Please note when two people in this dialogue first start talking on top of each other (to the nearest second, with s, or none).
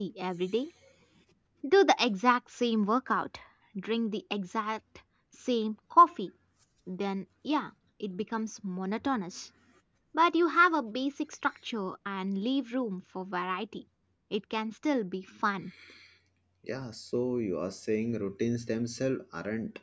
none